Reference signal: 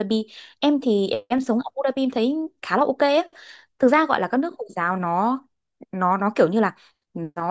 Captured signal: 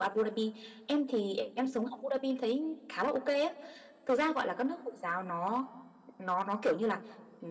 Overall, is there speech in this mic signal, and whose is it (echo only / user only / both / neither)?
echo only